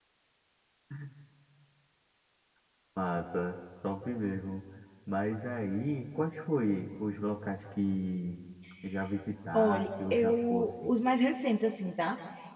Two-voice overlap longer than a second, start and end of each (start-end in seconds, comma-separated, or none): 9.5-10.9